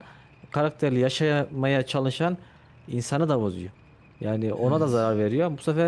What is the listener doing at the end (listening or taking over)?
listening